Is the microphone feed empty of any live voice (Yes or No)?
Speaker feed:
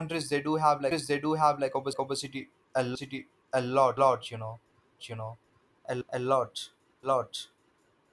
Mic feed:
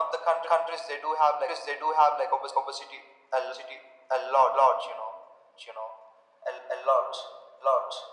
Yes